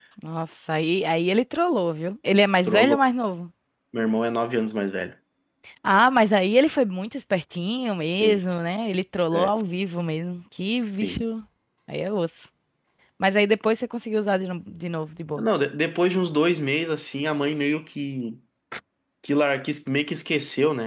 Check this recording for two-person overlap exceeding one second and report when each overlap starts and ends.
none

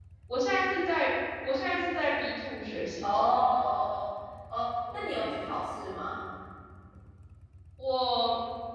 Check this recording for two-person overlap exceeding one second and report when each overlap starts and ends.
none

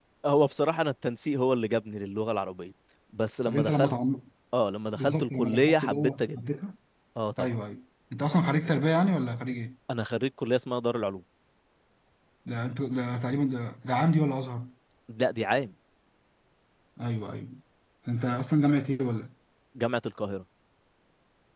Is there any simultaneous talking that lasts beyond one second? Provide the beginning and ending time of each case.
4.9-6.5

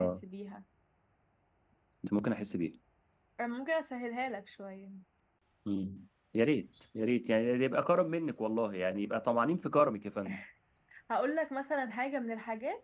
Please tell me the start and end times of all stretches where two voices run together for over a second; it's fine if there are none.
none

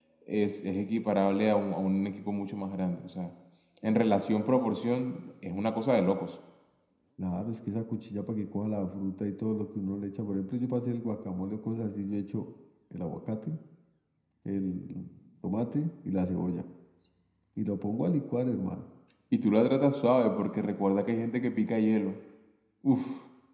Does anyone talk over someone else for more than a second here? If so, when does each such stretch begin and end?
none

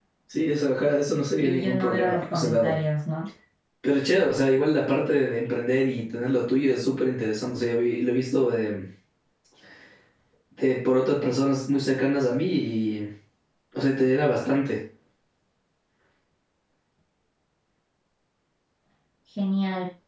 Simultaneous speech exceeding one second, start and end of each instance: 1.4-2.8

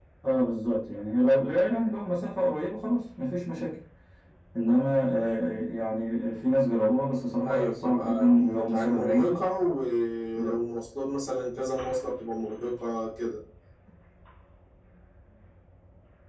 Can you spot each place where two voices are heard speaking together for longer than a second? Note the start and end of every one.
7.4-9.4

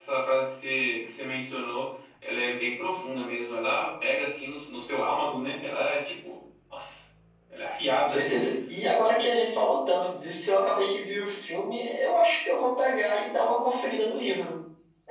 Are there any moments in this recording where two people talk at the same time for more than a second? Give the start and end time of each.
none

